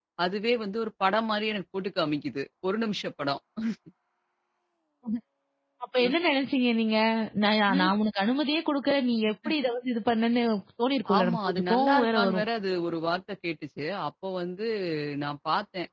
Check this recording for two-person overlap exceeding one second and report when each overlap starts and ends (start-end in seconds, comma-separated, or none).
11.2-12.4